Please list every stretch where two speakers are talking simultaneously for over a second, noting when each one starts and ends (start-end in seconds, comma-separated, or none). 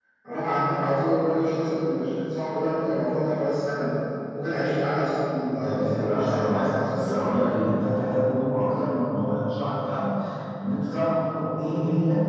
5.5-7.6